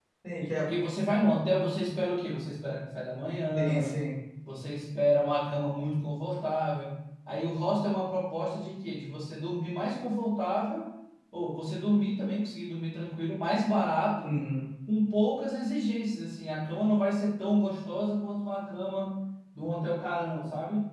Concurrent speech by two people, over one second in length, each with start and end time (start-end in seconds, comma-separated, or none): none